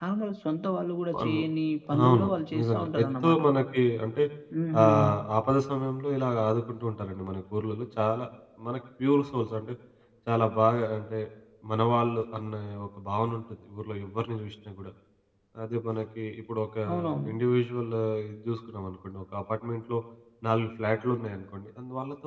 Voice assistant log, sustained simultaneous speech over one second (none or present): present